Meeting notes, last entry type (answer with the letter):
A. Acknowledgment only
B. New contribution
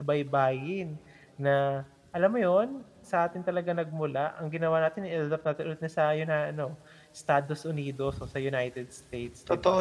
B